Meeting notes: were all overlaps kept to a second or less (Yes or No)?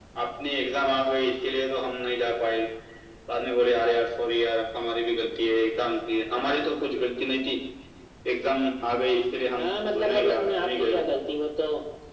No